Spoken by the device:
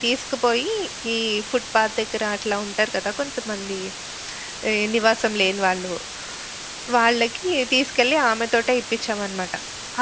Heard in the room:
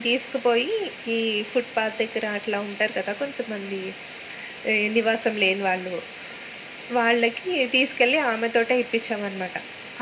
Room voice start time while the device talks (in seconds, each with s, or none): none